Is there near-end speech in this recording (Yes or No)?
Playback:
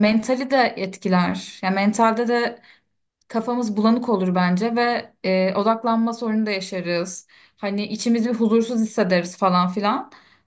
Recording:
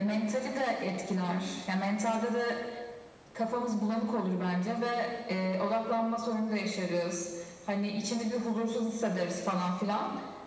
No